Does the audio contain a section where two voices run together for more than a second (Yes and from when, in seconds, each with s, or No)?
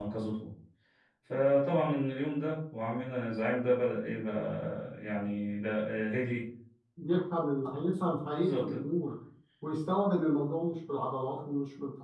No